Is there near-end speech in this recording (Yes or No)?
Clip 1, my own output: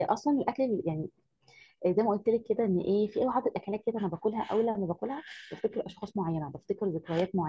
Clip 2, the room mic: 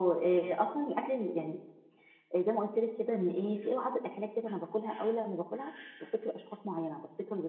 No